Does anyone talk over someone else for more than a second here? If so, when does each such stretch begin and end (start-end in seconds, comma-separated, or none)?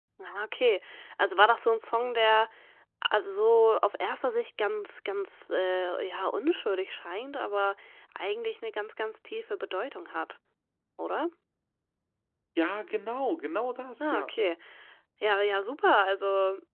none